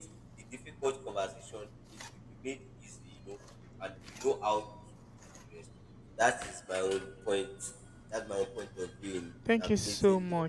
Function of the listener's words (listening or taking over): taking over